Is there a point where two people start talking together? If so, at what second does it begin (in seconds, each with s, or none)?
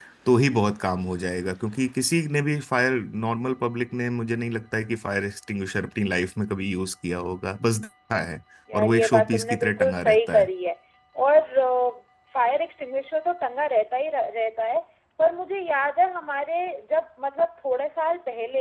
8.7 s